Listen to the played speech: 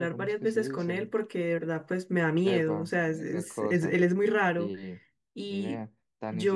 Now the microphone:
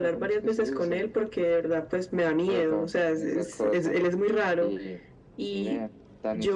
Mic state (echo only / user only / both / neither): echo only